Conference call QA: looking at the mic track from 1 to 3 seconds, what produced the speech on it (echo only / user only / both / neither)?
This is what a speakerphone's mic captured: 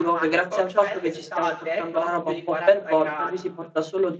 both